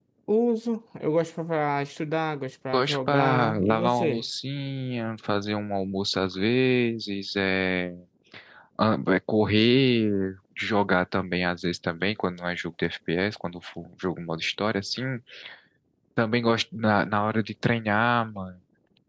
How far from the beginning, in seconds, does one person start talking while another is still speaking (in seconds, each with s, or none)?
2.7 s